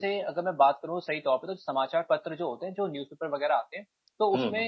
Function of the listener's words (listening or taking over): listening